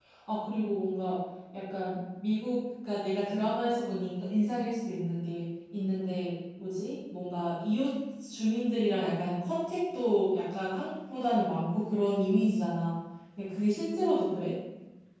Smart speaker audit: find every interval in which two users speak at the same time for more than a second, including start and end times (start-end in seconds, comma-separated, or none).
none